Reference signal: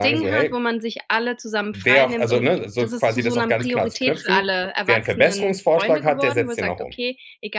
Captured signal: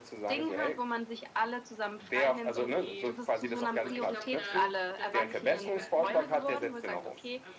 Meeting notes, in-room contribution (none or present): present